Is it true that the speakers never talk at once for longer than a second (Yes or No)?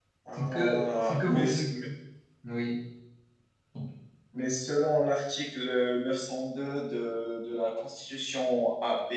No